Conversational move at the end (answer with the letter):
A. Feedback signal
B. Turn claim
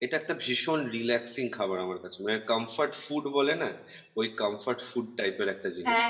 B